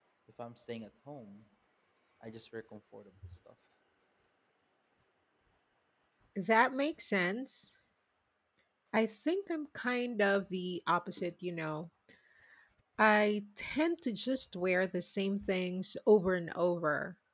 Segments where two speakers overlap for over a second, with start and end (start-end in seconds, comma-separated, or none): none